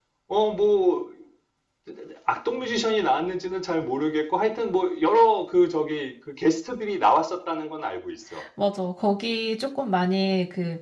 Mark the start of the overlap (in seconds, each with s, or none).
none